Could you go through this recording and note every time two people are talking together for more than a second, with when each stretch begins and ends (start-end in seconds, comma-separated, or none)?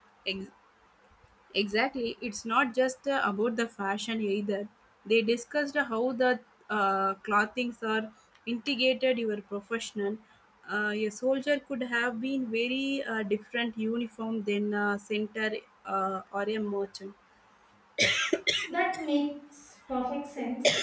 none